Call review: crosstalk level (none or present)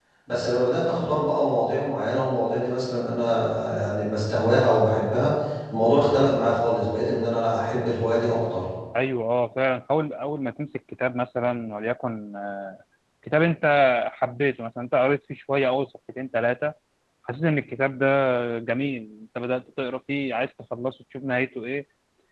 none